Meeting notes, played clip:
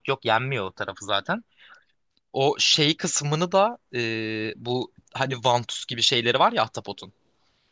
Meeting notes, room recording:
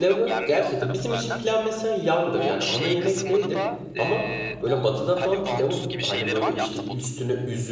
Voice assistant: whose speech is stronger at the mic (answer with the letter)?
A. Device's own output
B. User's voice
B